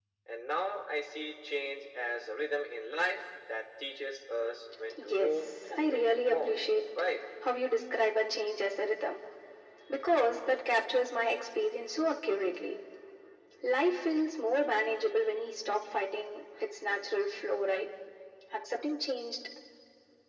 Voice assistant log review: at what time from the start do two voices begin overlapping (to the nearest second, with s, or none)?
5 s